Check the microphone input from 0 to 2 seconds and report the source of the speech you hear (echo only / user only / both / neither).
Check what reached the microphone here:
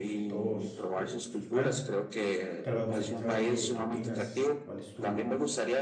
both